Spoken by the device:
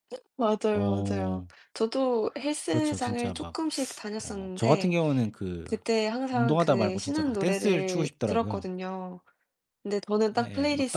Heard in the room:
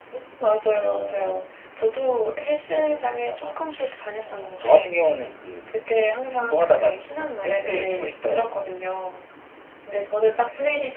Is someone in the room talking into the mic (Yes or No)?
Yes